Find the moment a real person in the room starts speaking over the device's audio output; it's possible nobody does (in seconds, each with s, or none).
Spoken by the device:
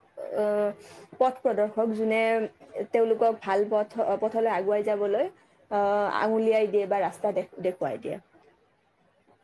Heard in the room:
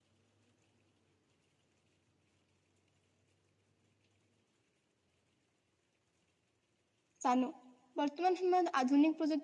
7.2 s